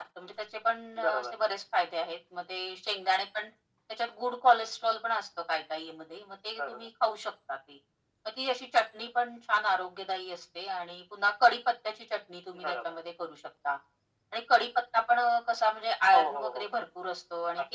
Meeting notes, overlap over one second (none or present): none